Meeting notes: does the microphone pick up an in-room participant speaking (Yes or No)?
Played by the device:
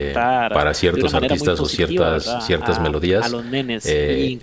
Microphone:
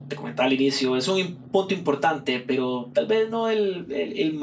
Yes